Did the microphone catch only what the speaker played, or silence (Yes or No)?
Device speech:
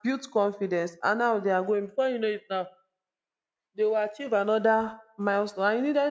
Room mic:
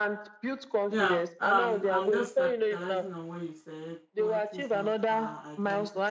No